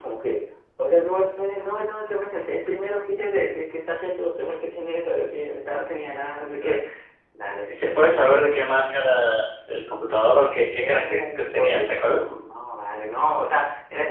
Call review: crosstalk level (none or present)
present